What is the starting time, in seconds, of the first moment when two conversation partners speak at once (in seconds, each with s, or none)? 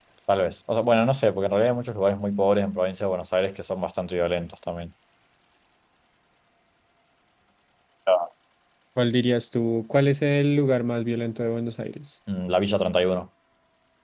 none